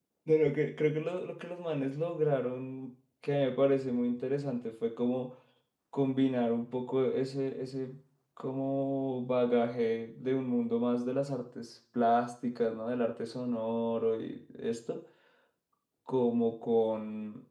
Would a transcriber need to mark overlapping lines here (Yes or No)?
No